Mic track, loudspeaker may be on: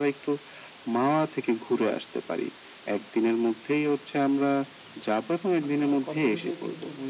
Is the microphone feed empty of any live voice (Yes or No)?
No